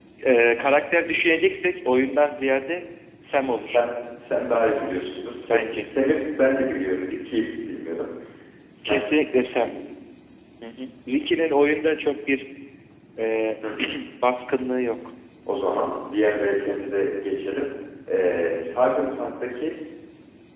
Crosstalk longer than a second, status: none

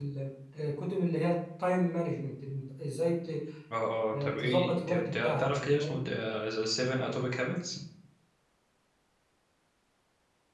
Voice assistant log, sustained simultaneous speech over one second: present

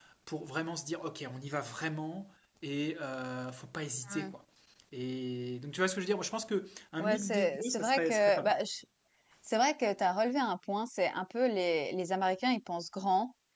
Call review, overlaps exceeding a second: present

